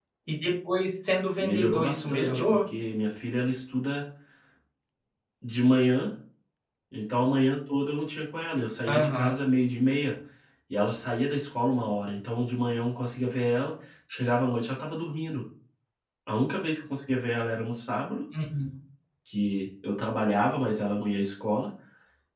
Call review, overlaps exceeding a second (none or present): present